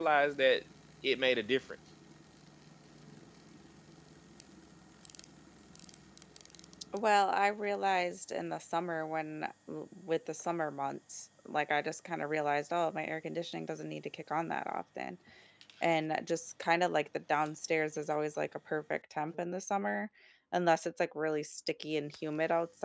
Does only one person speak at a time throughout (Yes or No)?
Yes